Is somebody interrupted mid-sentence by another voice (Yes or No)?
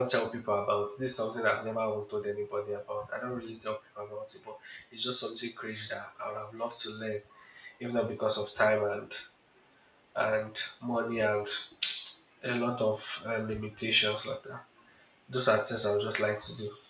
No